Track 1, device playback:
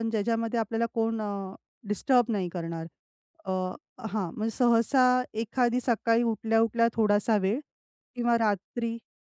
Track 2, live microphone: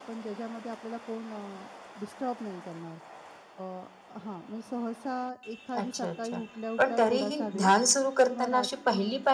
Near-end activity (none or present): present